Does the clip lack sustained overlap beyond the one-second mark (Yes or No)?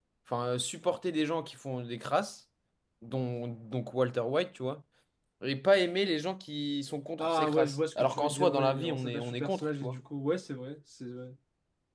No